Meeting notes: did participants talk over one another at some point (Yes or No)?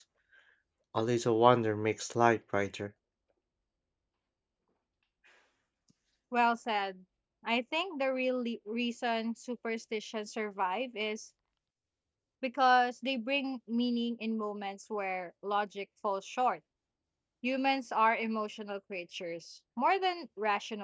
No